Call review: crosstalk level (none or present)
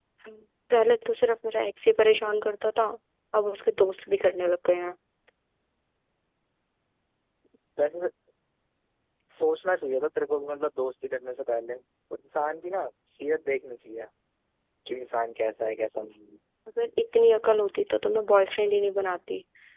none